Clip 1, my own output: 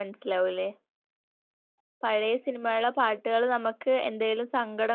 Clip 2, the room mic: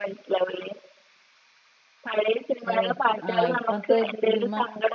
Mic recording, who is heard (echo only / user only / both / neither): both